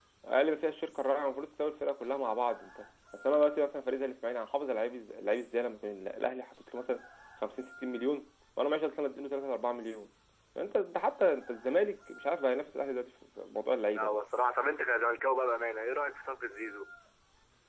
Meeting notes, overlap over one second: none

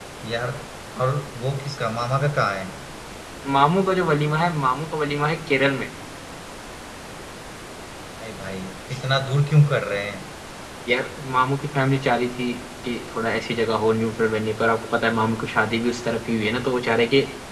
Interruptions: none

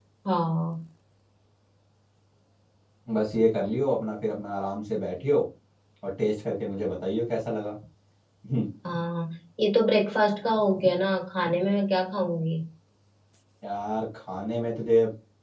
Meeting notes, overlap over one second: none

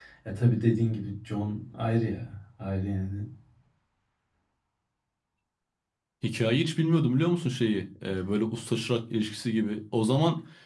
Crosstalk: none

